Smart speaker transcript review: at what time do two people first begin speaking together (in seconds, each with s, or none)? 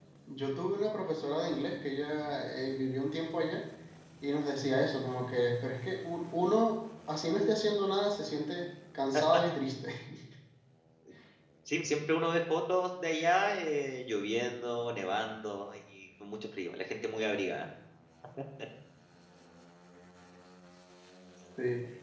none